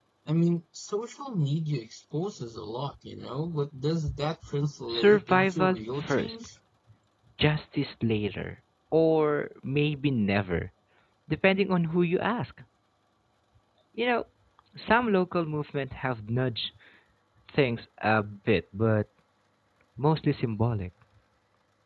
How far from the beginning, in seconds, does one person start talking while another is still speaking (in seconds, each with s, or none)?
4.9 s